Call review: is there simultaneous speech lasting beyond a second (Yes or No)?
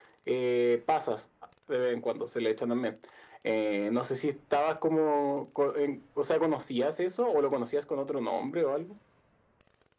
No